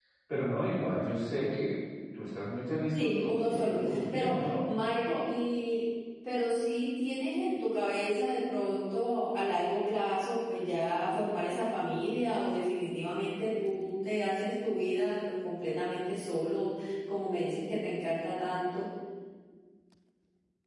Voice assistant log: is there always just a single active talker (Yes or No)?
No